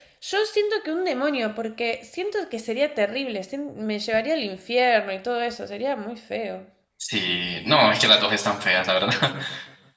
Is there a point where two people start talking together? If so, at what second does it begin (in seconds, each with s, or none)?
none